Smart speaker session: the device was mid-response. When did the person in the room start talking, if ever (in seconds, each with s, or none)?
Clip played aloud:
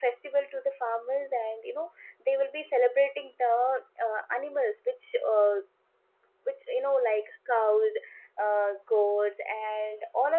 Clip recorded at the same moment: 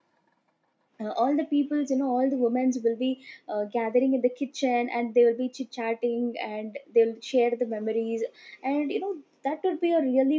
1.0 s